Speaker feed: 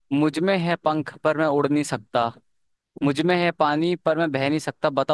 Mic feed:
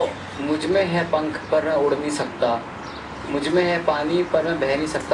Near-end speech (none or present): none